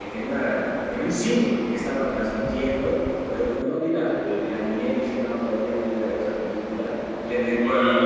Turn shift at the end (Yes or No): No